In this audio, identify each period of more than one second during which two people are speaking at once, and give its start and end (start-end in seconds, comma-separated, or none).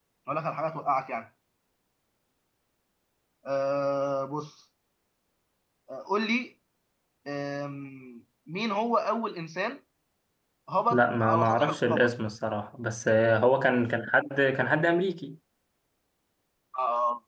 10.9-12.1